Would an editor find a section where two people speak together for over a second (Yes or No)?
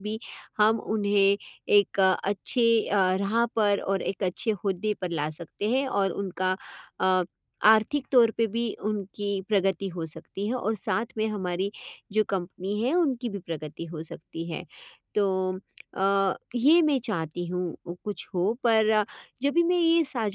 No